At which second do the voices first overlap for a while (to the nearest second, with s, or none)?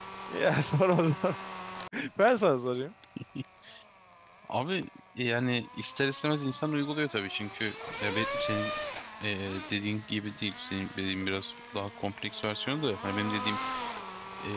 none